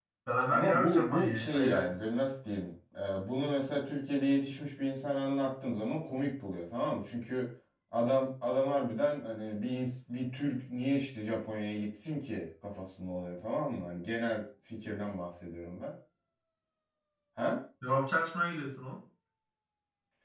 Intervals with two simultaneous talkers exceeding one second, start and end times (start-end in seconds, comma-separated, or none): 0.5-2.0